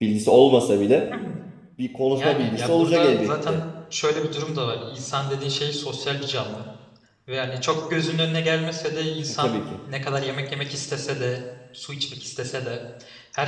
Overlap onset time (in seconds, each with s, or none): 2.1 s